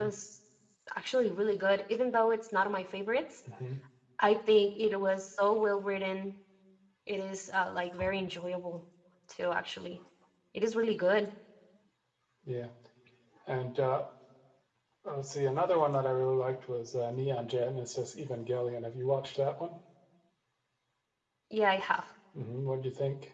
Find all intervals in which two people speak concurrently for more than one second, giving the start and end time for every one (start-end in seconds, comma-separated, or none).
none